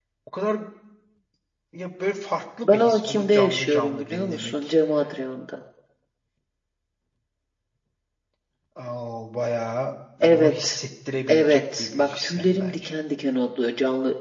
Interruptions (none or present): present